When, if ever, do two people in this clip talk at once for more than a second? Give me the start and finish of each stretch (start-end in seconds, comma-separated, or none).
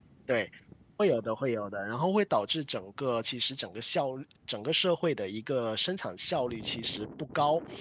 none